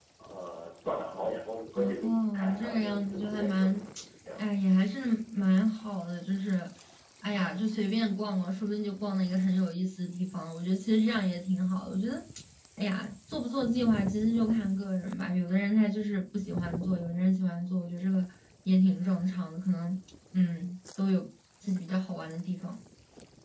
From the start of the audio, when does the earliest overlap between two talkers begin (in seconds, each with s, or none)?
2.0 s